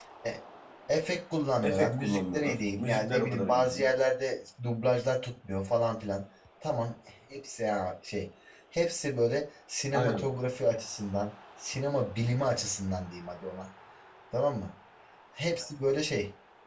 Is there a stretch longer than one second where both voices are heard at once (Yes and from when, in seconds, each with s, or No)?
Yes, from 1.6 s